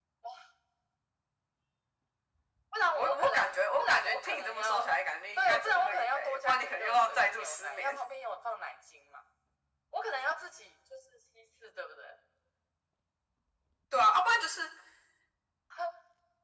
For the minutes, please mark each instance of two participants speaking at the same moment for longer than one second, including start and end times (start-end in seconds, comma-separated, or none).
2.9-4.8, 5.4-7.9